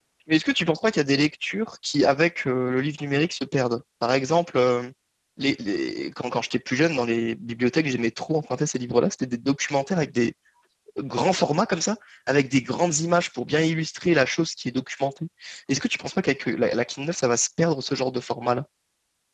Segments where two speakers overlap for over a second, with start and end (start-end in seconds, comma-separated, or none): none